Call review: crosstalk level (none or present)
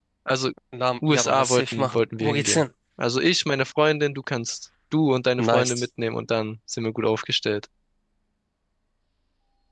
present